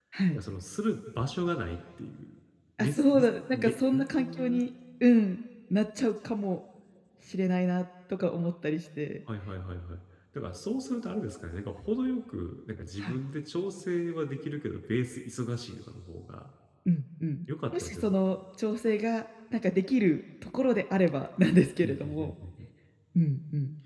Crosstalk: present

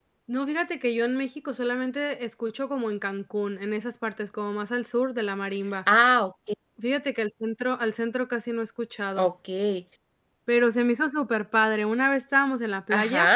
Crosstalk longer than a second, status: none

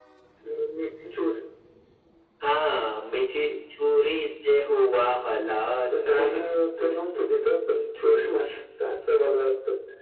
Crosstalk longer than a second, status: none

